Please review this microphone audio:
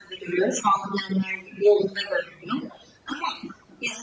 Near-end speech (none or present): none